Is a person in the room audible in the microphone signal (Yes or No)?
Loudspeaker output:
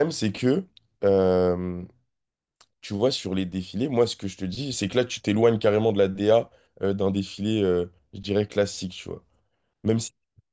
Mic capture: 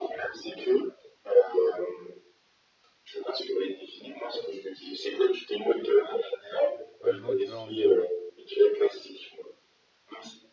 Yes